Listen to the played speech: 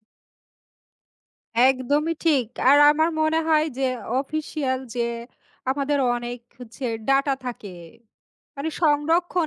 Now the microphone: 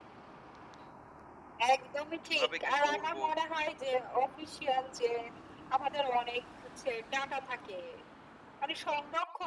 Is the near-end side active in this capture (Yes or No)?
Yes